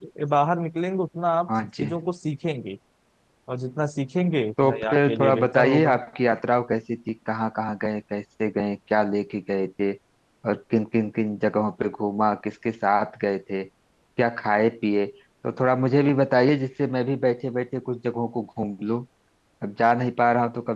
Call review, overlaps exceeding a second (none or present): present